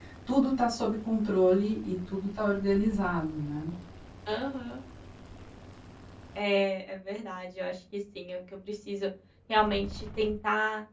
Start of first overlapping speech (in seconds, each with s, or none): none